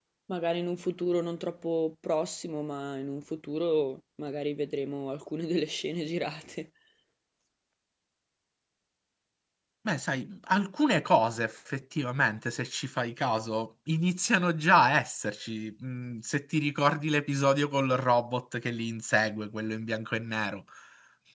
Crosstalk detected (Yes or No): No